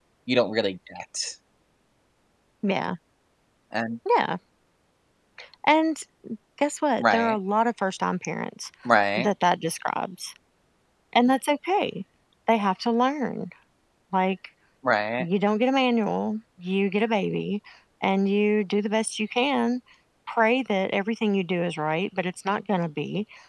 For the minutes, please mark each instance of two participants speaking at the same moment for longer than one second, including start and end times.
none

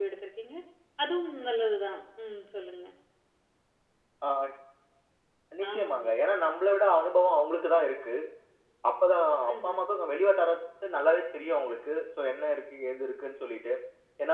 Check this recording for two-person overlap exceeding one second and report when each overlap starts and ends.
none

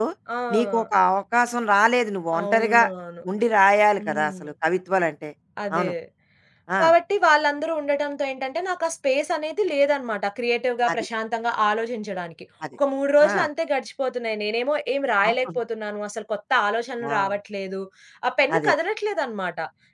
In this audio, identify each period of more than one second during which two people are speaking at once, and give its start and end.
none

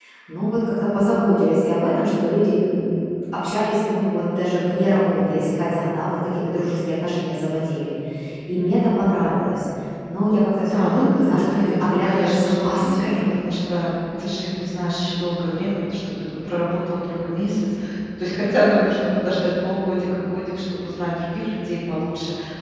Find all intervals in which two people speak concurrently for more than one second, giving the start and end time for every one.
10.7-13.2

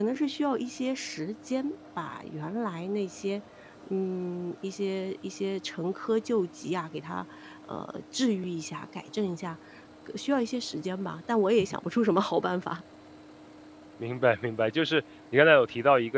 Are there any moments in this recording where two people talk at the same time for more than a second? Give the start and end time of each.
none

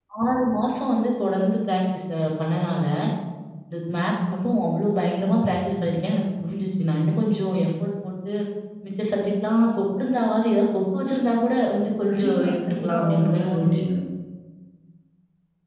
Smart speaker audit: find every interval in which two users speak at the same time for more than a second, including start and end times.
12.1-13.7

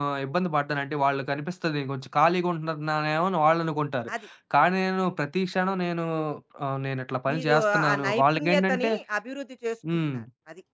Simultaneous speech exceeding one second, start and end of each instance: 7.3-8.9

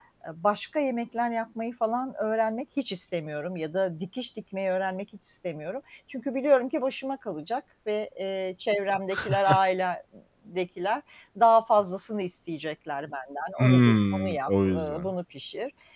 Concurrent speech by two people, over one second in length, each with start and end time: 13.6-15.1

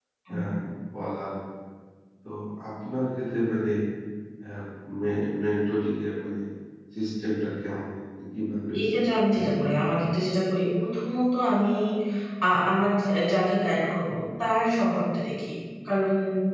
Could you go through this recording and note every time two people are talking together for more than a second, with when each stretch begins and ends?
8.8-10.0

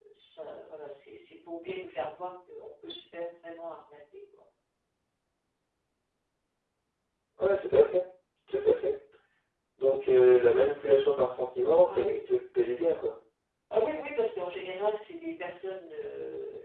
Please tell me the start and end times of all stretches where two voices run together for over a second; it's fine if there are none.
none

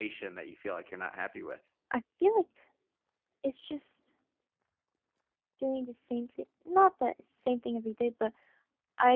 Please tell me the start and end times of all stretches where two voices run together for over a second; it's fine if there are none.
none

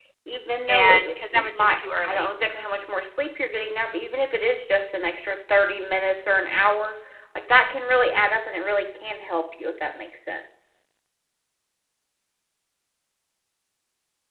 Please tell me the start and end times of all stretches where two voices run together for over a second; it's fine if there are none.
0.7-2.3

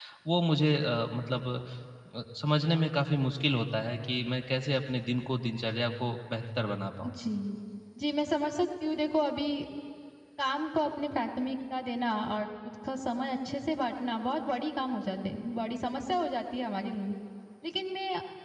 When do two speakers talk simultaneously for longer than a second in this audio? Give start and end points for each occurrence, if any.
none

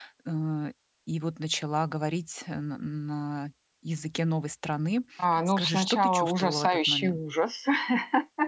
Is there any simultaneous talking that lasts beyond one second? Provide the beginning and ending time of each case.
5.5-7.2

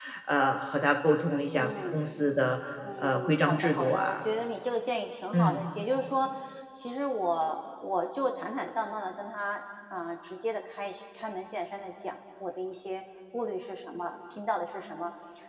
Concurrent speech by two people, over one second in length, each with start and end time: 3.0-4.2

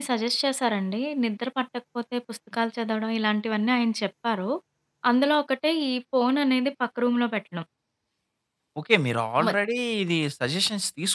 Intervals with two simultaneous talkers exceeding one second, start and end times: none

